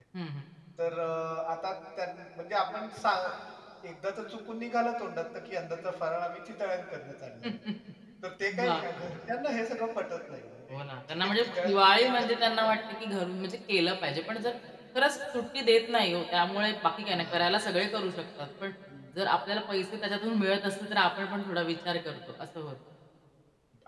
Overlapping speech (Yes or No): Yes